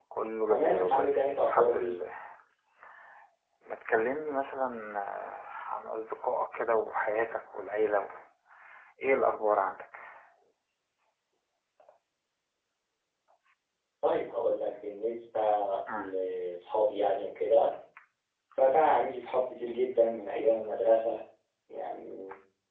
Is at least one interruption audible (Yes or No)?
Yes